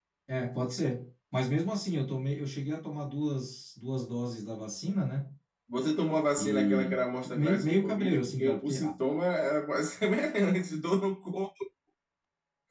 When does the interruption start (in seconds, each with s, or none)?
6.4 s